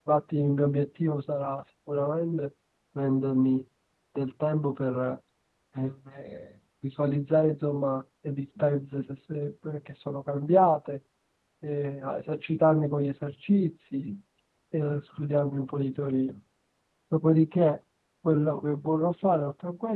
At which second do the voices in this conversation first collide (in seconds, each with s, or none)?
none